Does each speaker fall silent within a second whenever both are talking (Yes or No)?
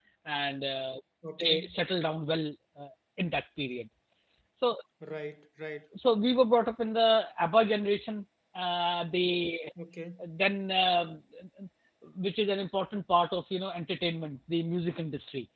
Yes